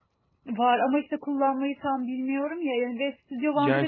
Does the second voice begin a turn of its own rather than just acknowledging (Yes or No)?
Yes